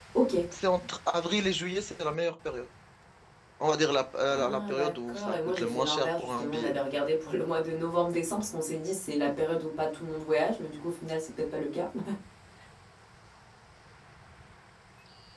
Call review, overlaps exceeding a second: present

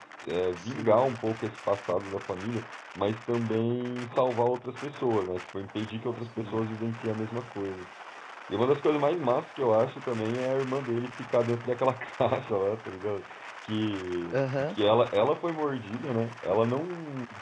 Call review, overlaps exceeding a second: none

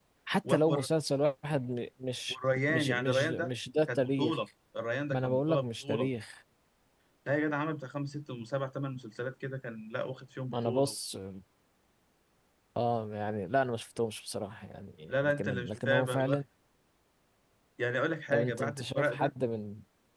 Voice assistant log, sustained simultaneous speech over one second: present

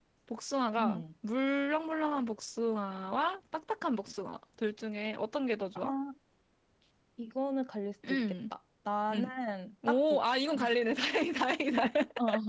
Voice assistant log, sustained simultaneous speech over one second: none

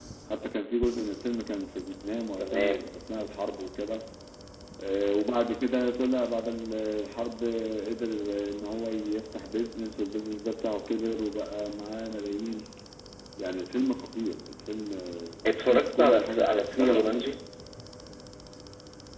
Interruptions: present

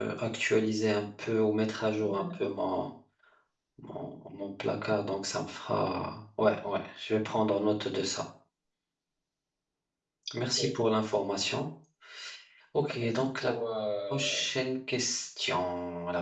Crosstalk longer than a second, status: none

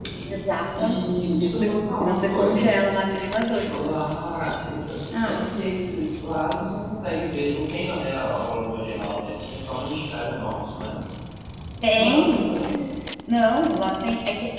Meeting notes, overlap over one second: present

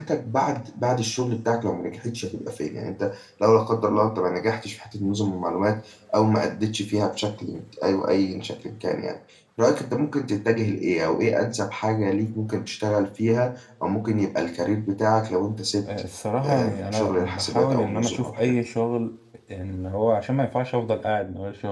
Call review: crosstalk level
present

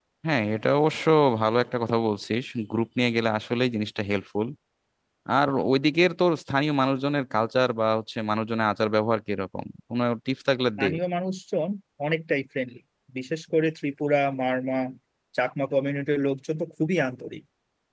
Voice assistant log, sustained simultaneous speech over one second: none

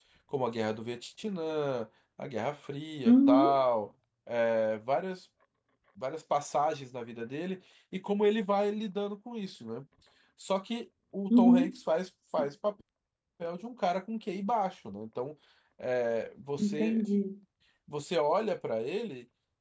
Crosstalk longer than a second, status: none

